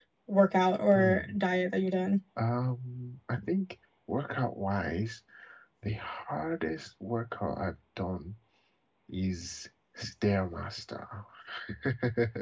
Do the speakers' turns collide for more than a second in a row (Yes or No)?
No